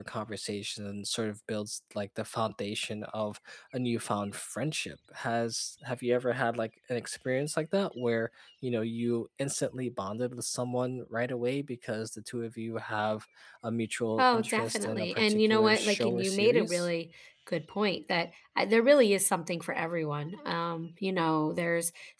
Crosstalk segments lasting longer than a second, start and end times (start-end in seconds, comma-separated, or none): 14.2-16.9